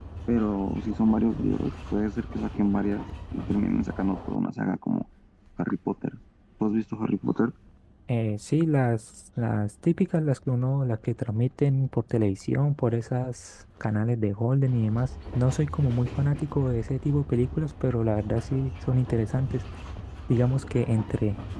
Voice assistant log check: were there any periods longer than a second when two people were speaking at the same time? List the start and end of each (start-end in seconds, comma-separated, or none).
none